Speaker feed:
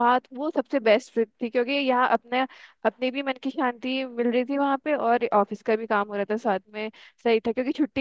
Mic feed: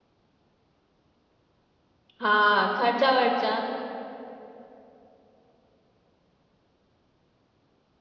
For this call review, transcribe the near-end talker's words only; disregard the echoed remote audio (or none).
हाँ खर्चा वर्चा